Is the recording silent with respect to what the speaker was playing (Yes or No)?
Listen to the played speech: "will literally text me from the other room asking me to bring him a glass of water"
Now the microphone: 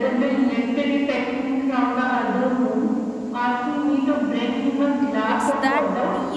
No